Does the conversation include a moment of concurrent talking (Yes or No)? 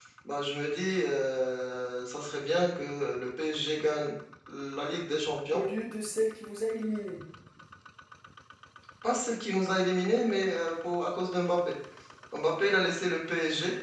No